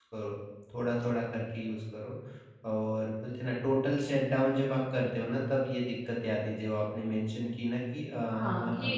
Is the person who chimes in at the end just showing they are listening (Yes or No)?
No